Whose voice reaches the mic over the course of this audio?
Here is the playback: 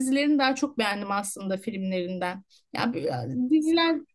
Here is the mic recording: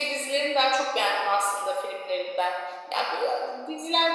echo only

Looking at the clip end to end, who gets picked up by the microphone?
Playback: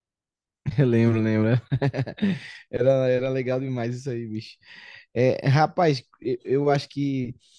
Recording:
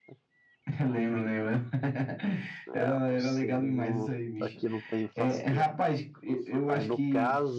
both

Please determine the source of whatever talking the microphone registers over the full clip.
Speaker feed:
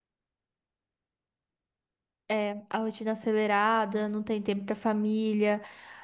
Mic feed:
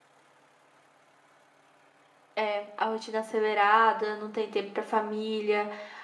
echo only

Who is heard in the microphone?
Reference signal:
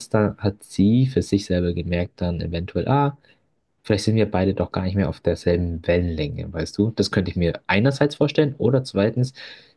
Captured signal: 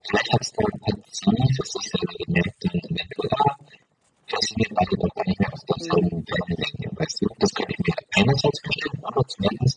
both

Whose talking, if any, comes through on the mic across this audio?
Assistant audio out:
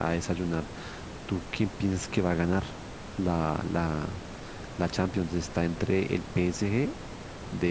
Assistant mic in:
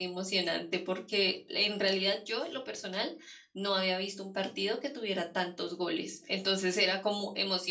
user only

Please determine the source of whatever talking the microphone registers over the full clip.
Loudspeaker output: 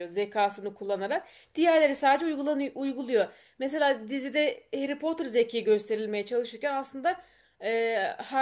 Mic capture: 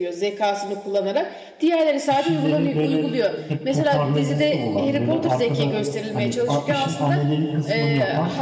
both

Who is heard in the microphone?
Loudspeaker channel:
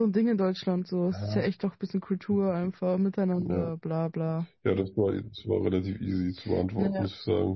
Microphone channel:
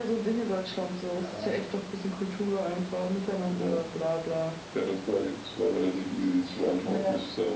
echo only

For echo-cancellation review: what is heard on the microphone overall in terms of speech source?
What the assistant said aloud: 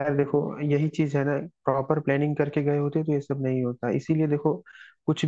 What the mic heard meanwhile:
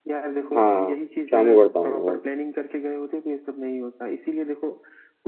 both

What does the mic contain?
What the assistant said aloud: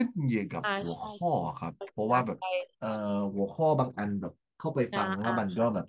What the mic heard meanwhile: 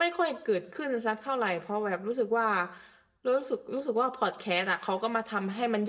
user only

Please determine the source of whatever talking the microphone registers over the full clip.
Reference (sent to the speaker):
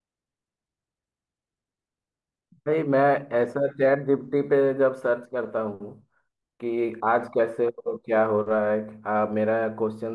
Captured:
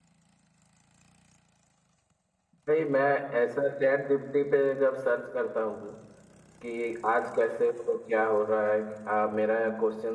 echo only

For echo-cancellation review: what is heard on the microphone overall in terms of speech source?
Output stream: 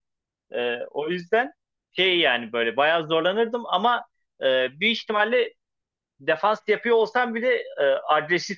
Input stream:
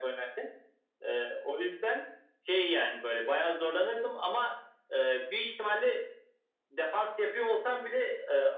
echo only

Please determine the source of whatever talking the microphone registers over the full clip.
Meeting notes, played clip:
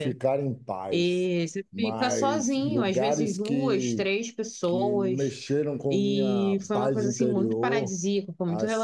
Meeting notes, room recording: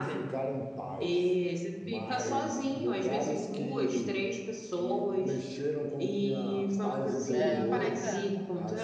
both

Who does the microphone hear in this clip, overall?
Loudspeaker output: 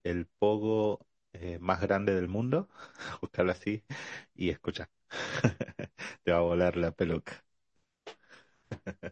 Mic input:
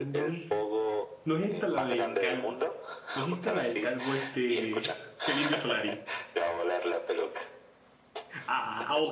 both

